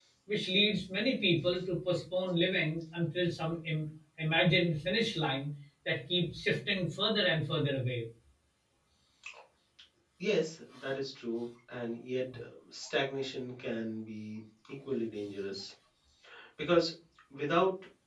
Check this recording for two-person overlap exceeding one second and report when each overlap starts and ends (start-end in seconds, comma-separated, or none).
none